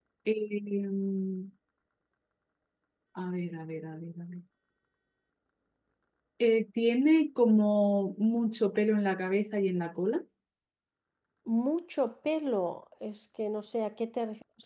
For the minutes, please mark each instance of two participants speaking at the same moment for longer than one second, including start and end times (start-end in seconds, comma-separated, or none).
none